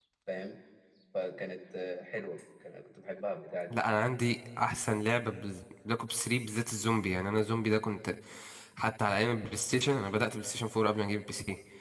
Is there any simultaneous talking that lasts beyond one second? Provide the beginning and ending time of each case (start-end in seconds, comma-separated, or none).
none